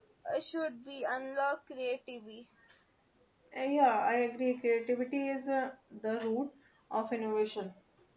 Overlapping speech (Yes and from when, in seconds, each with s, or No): No